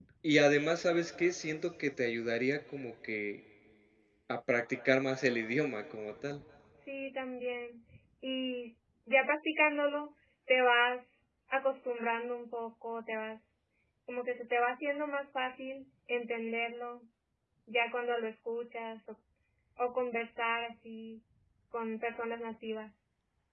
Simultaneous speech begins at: none

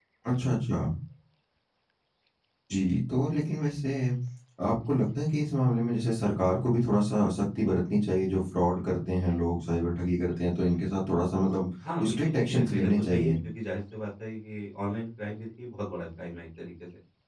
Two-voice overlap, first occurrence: 11.8 s

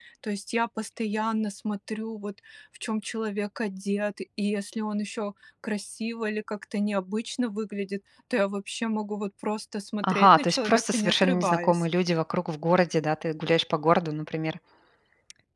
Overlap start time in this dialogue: 10.0 s

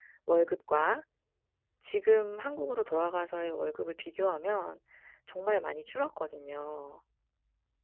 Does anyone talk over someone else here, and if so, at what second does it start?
none

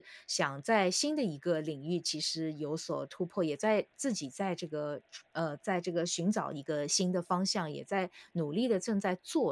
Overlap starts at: none

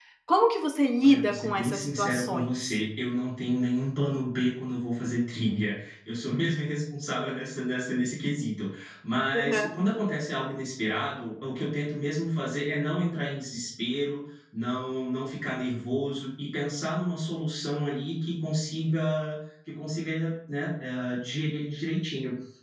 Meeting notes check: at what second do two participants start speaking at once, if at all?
1.0 s

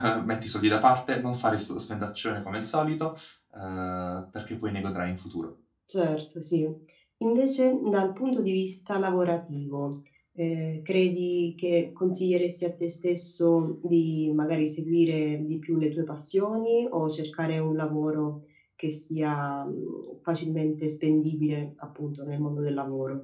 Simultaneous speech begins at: none

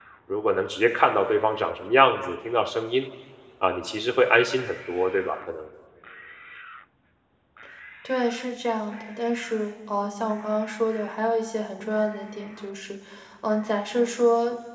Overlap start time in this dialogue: none

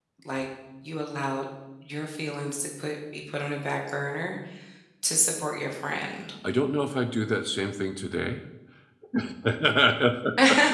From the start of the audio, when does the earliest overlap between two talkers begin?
none

